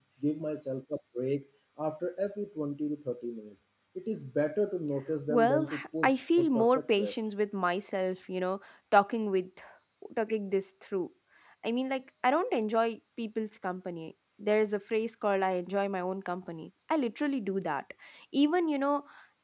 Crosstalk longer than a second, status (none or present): present